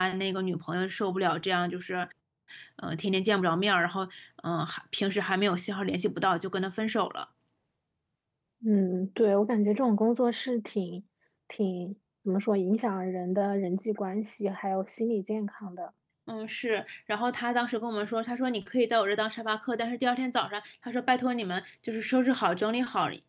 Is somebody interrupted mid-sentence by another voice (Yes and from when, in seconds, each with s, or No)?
No